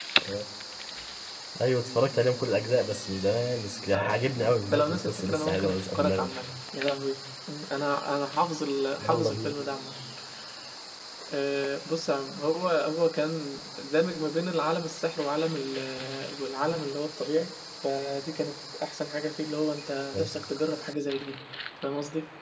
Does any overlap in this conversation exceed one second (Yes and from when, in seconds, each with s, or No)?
Yes, from 3.9 s